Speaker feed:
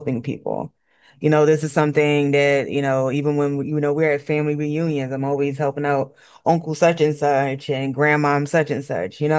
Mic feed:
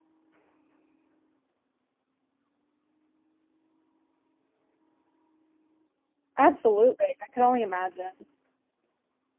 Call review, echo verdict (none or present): none